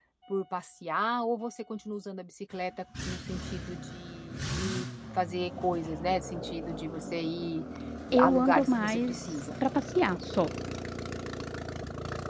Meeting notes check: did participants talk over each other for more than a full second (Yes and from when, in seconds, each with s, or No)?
Yes, from 8.2 s